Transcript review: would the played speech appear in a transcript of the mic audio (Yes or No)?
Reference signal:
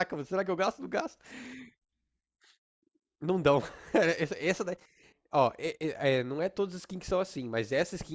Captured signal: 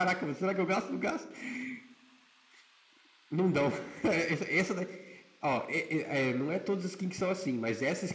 Yes